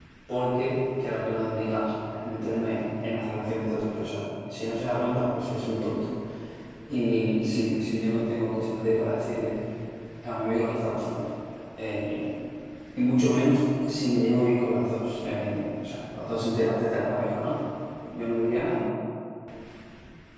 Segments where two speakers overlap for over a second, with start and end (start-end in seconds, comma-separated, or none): none